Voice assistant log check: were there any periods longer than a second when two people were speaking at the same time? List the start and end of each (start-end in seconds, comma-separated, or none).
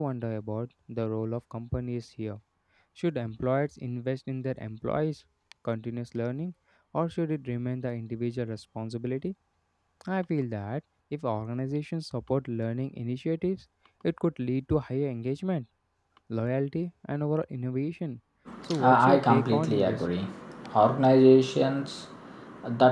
18.8-20.0